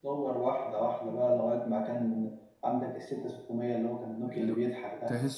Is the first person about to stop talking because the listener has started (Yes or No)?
Yes